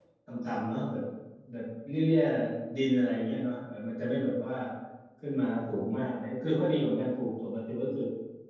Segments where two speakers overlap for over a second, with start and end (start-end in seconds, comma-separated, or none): none